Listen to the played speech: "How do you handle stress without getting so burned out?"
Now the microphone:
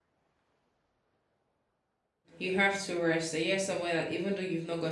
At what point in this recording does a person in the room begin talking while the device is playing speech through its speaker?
2.4 s

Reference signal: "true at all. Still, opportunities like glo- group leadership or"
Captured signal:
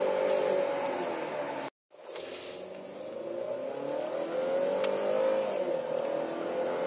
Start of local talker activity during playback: none

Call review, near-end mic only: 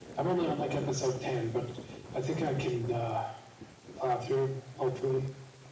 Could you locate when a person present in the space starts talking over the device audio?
none

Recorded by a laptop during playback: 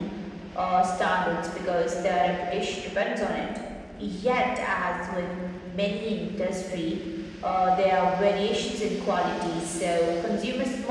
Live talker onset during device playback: none

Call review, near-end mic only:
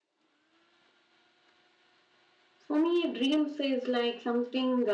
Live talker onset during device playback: 2.7 s

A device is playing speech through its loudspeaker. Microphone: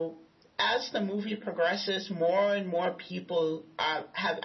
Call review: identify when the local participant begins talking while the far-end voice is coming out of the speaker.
none

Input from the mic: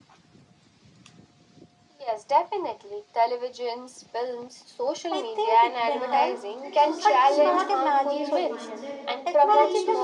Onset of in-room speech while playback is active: 5.9 s

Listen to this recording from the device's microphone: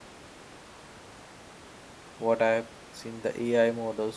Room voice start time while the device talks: 2.2 s

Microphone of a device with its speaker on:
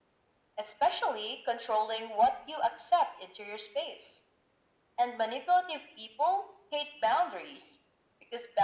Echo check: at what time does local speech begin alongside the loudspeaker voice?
none

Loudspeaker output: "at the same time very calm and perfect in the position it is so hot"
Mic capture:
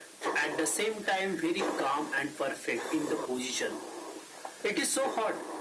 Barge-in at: none

